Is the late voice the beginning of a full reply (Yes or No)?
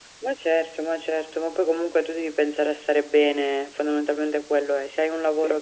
No